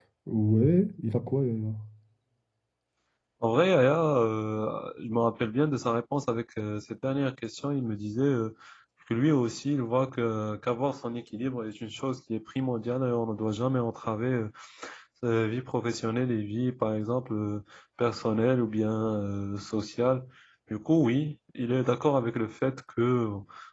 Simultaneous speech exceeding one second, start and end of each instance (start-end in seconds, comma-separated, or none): none